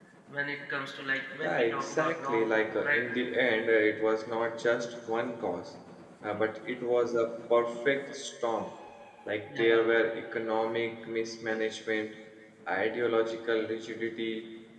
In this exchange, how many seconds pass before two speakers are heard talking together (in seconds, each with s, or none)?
1.4 s